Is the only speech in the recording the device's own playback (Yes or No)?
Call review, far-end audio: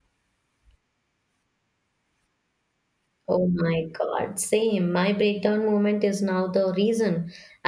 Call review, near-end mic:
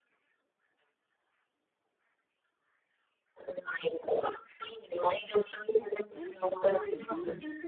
No